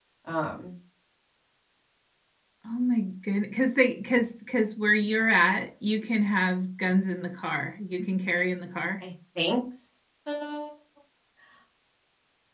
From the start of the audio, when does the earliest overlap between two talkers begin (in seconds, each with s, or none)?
none